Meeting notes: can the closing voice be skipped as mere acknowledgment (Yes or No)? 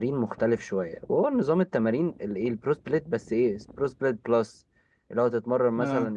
Yes